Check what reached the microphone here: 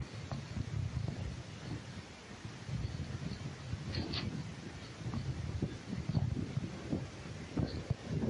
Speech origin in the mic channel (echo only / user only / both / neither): neither